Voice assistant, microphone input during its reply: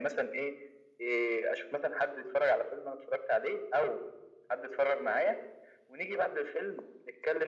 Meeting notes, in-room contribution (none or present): none